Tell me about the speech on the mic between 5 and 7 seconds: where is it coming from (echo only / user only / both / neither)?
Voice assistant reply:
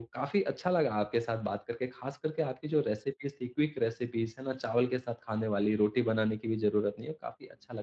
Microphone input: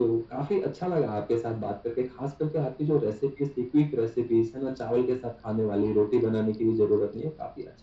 echo only